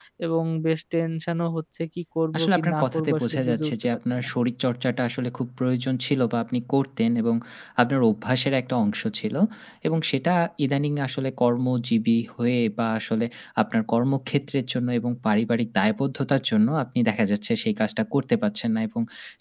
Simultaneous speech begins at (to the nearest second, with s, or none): 2 s